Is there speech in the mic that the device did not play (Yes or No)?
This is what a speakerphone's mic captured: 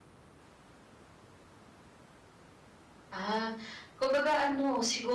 Yes